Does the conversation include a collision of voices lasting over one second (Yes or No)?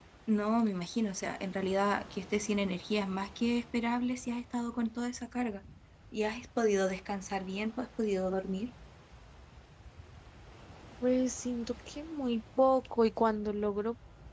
No